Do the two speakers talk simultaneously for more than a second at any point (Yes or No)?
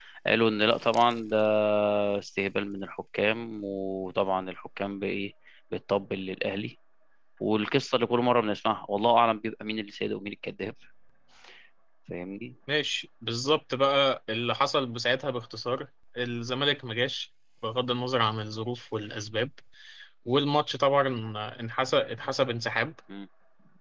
No